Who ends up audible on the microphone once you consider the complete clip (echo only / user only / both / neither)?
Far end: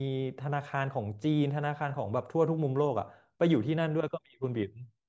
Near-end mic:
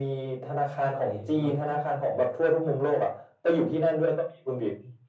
both